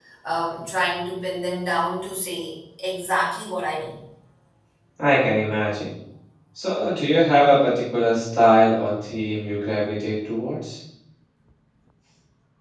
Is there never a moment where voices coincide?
Yes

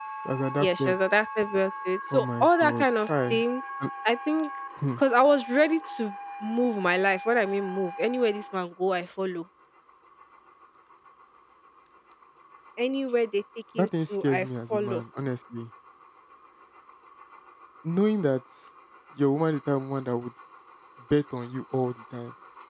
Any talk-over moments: Yes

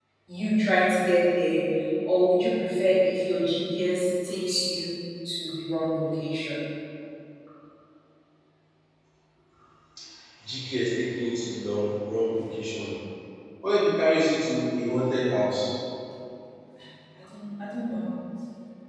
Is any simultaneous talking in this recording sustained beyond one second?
No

